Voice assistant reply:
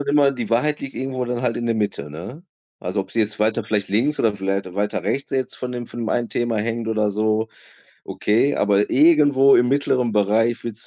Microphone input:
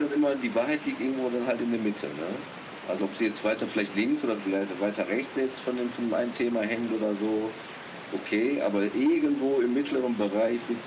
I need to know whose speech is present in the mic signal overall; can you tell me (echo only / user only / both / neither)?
echo only